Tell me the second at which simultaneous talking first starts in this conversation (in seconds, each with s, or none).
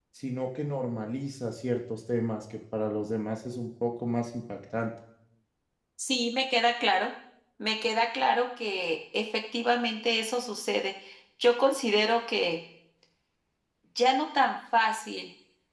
none